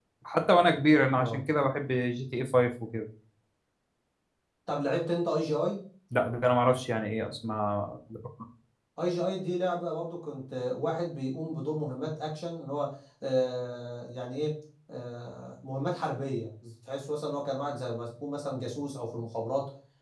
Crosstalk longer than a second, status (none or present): none